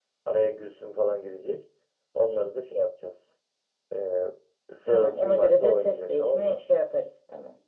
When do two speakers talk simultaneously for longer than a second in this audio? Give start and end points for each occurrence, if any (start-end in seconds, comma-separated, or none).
4.9-6.6